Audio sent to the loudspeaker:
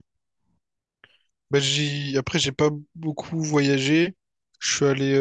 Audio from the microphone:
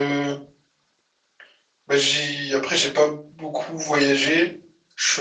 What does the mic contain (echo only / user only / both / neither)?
echo only